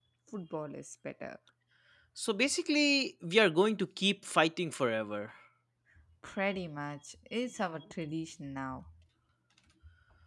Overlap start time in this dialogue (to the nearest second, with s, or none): none